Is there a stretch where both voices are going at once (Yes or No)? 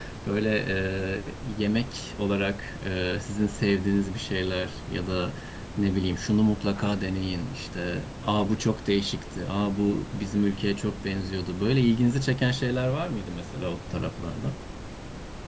No